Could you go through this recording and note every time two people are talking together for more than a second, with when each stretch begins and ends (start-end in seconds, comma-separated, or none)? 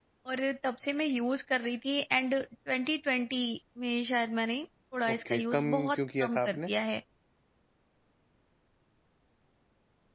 5.1-6.7